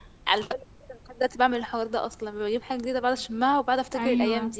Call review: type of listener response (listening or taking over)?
taking over